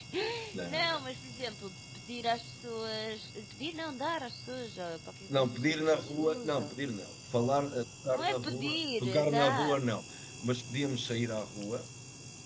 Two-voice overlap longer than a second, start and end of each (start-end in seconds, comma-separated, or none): 5.4-6.7, 8.1-9.8